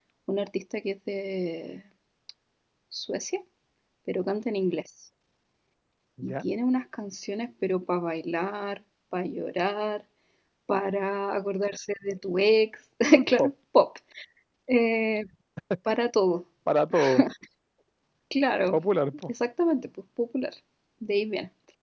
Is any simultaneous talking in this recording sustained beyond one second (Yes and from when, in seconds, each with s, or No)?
No